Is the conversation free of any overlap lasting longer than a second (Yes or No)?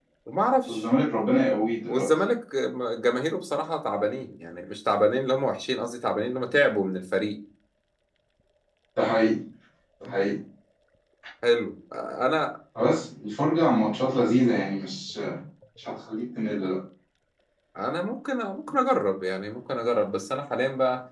Yes